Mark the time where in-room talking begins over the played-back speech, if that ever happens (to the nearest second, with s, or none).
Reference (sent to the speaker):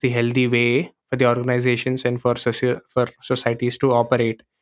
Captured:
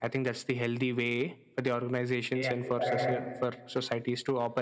2 s